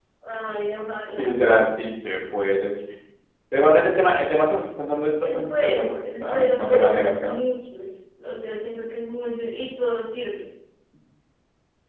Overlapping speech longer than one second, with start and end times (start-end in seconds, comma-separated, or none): 5.2-7.3